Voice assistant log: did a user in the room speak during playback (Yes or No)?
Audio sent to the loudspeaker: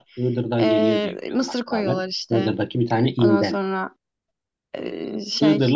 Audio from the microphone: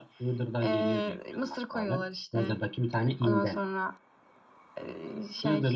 No